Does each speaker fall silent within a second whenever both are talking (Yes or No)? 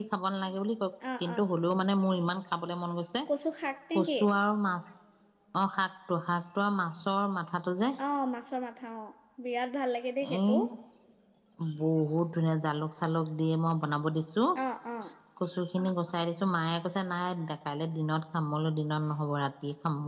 Yes